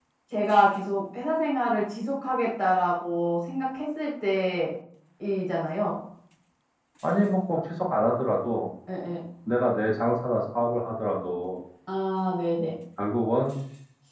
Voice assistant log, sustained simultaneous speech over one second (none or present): none